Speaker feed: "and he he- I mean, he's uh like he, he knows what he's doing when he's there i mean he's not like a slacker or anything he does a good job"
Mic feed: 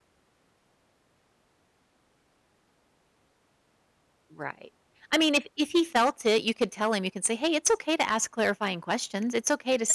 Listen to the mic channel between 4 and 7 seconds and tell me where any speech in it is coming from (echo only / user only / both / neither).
user only